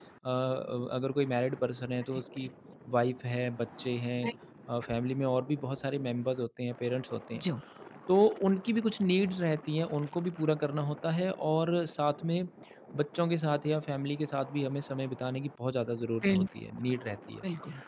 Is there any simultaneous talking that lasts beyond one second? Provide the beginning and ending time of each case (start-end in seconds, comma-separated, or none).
none